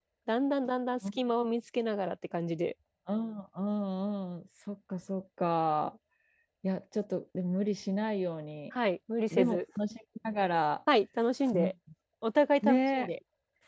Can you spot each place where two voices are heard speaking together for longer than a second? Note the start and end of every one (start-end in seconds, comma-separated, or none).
none